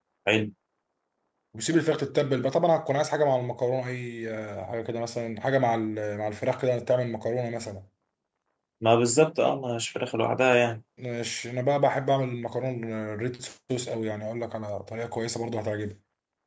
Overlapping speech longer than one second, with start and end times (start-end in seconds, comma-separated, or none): none